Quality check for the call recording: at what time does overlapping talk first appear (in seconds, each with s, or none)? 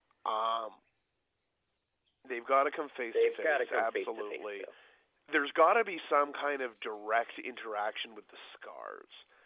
3.1 s